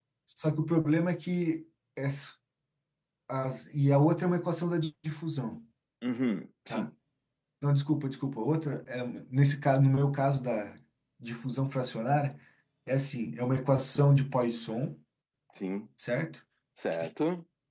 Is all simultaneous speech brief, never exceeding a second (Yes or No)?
Yes